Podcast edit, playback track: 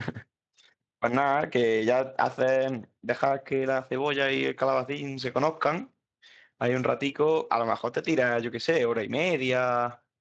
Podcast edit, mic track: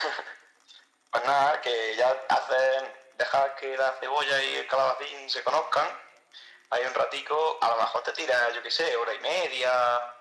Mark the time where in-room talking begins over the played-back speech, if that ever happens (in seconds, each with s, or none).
none